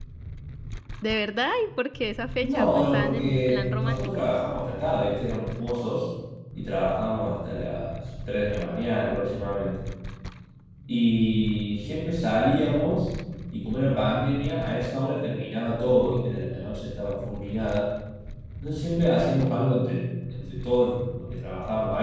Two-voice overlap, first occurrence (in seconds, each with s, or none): 2.4 s